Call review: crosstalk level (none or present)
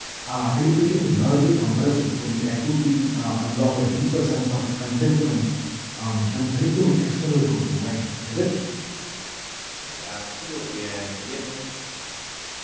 none